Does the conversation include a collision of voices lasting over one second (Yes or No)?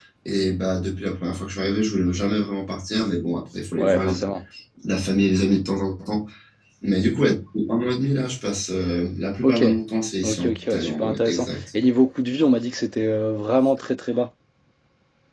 Yes